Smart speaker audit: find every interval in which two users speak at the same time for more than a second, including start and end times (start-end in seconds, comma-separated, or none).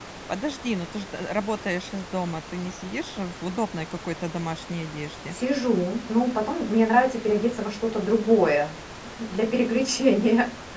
none